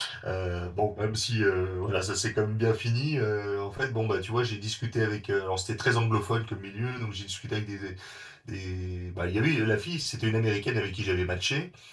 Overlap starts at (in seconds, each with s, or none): none